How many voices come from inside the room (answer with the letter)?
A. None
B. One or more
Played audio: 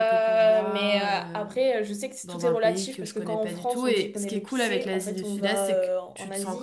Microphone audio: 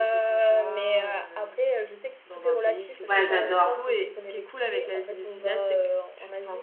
B